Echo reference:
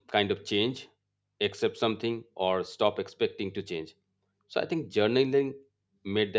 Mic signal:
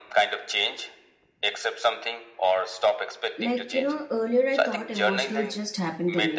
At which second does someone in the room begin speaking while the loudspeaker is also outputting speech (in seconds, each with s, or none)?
3.4 s